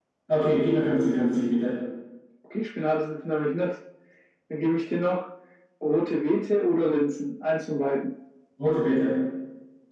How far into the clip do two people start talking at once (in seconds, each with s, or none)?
none